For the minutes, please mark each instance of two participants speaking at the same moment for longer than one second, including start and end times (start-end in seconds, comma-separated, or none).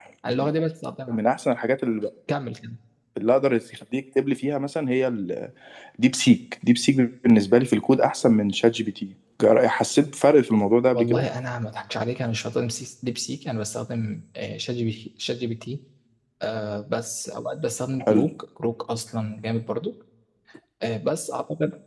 none